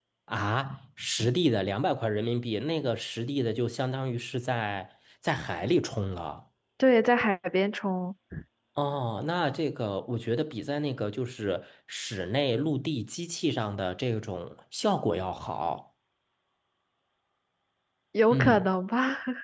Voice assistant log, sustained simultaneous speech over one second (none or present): none